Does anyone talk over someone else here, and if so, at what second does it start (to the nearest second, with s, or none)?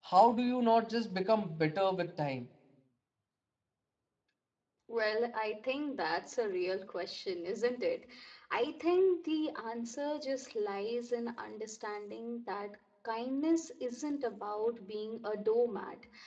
none